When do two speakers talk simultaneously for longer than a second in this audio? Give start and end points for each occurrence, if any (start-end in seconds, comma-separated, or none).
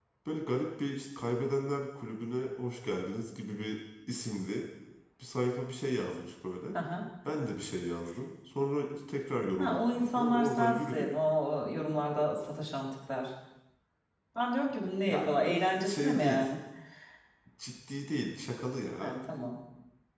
9.6-11.1, 15.1-16.5